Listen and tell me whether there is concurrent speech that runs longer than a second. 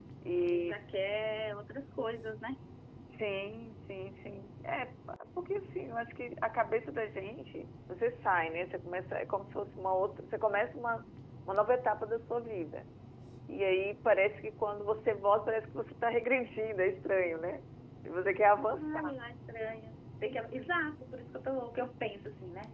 No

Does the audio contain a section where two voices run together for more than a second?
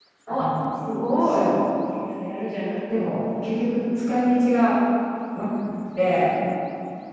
No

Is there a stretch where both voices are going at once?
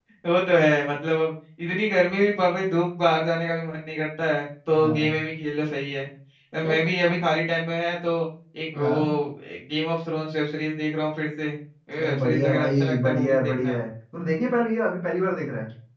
Yes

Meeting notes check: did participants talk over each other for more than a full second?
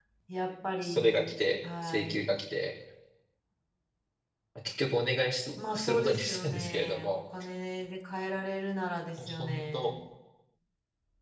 Yes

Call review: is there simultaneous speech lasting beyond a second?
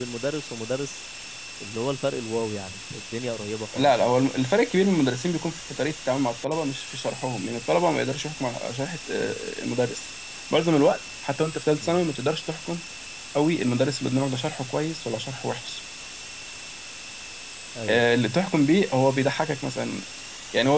No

